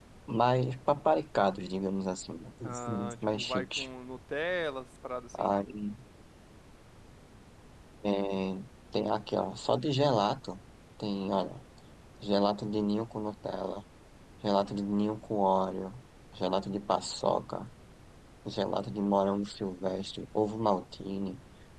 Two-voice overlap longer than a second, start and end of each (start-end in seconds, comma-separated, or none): 2.6-3.9